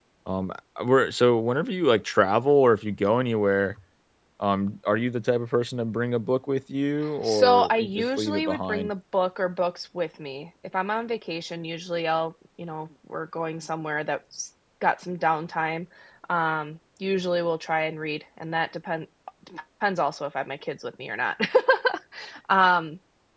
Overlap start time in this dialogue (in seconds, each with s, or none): 7.2 s